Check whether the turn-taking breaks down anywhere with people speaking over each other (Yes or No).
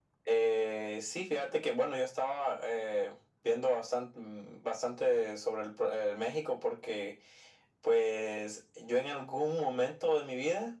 No